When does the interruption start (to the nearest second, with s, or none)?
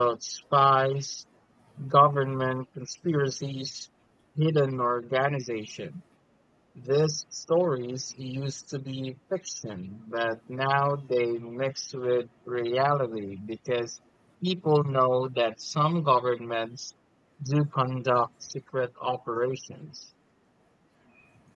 none